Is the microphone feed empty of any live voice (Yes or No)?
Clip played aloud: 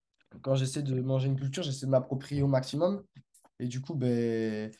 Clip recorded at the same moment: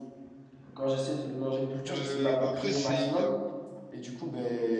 No